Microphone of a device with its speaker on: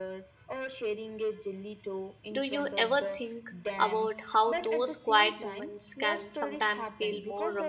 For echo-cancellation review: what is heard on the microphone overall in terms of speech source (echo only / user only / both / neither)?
both